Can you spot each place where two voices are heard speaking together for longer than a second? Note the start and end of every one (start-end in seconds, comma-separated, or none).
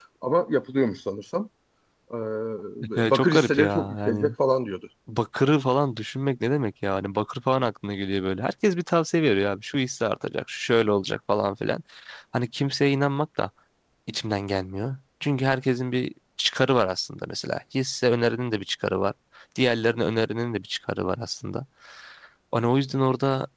3.0-4.3